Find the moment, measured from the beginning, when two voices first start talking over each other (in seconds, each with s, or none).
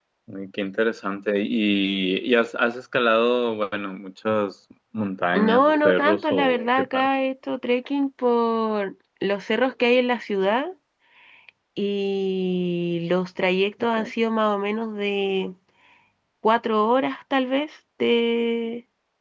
5.3 s